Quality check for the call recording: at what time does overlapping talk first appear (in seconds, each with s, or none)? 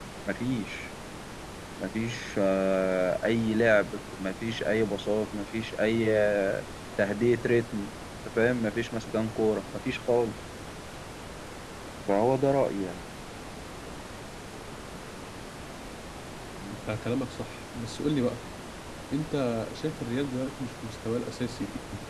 none